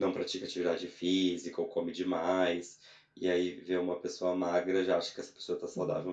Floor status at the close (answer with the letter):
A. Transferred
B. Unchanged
B